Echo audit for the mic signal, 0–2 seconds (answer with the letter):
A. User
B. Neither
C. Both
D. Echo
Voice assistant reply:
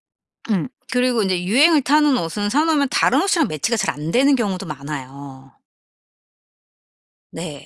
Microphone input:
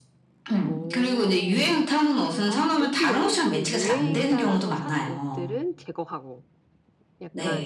C